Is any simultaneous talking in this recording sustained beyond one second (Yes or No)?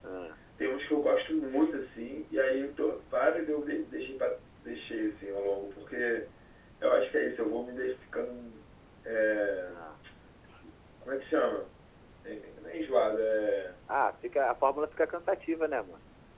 No